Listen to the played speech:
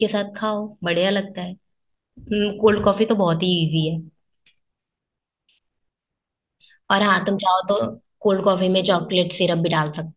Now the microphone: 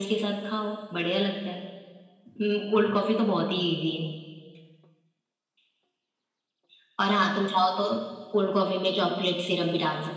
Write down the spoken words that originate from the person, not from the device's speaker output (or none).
none